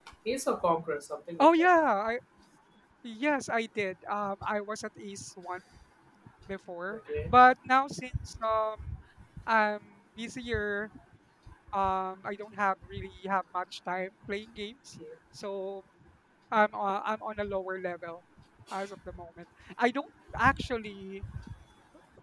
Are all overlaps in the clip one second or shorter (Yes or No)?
Yes